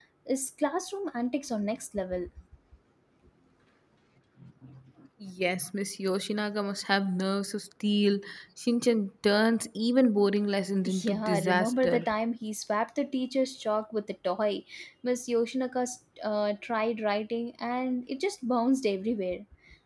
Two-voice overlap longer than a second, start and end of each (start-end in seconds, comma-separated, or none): 10.8-12.1